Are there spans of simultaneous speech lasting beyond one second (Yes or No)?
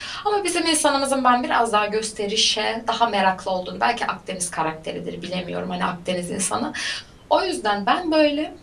No